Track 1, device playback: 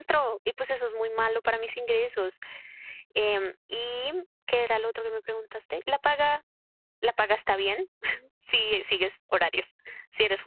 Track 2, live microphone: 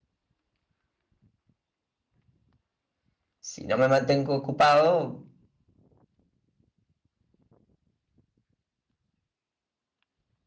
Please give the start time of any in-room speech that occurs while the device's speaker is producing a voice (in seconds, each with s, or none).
3.4 s